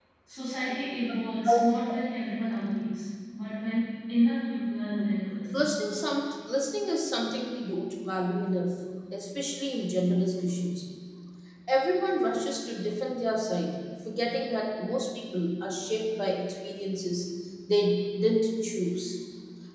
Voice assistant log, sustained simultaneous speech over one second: none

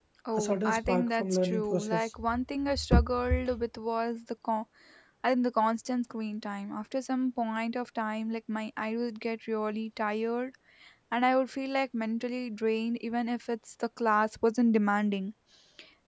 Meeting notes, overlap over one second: present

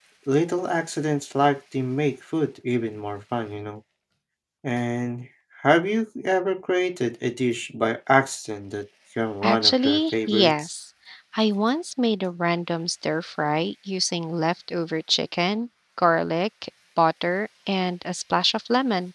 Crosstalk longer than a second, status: present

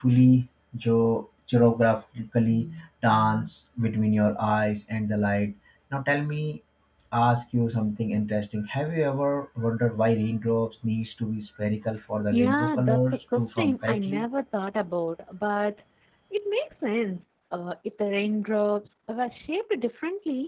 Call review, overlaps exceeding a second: present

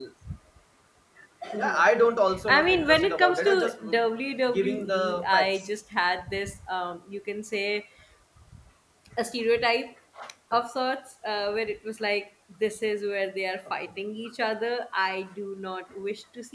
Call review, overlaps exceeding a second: present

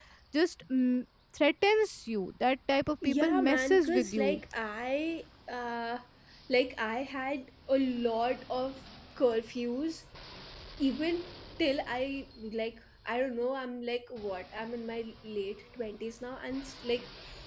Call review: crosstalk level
present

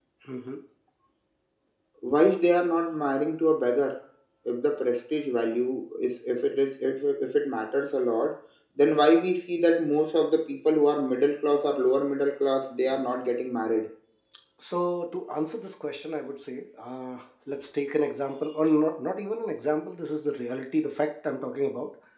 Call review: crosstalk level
none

